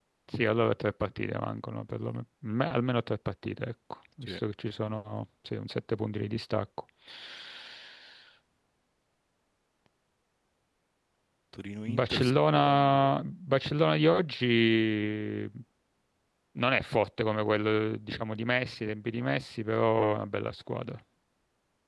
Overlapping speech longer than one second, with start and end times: 11.9-13.1

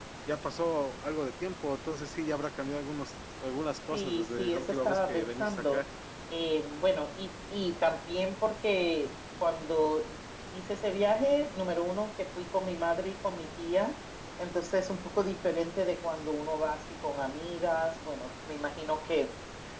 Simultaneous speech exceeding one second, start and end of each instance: 3.9-5.8

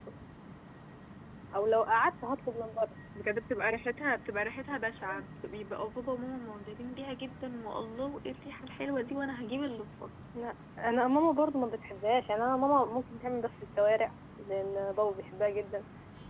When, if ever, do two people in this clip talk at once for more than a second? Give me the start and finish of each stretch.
none

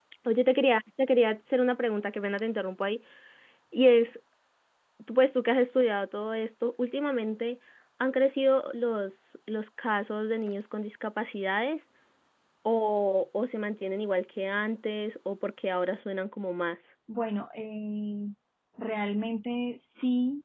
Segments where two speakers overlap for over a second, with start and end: none

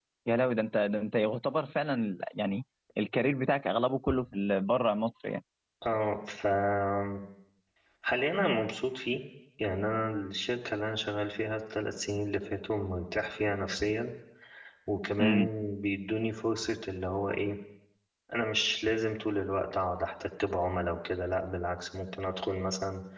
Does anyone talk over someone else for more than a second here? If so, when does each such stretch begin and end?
none

